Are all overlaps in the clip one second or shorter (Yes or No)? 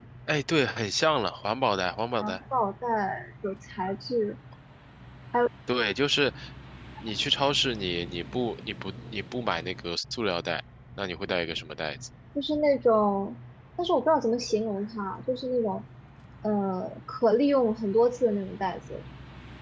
Yes